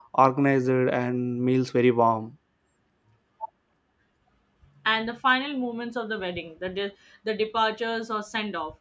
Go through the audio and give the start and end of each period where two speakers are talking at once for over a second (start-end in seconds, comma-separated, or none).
none